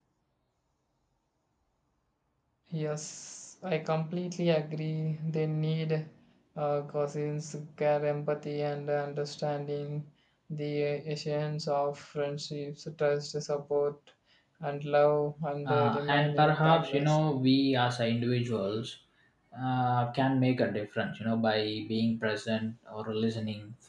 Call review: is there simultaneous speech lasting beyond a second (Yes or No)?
Yes